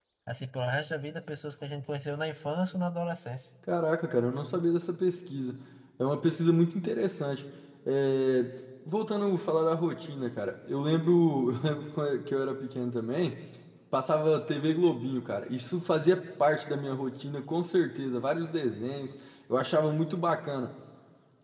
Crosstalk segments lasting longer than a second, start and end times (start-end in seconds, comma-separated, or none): none